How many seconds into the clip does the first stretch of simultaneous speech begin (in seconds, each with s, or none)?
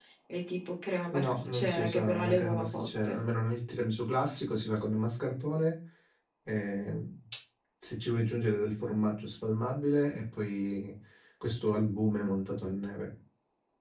1.1 s